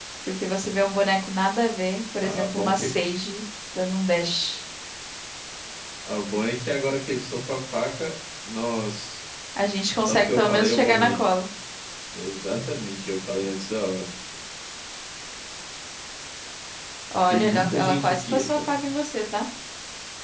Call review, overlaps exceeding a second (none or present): present